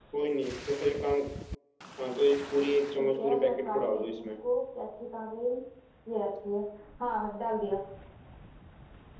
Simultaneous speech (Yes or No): Yes